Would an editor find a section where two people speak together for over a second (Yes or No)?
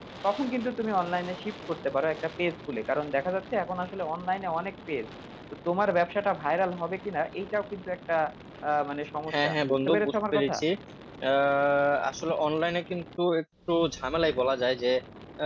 Yes